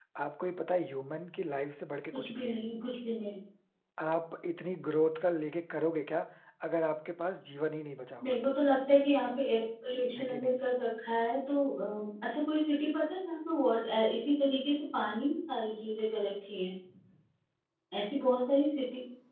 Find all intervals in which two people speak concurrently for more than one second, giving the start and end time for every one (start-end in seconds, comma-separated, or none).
none